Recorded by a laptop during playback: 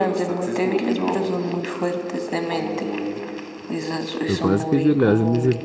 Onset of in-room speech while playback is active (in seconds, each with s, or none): 4.3 s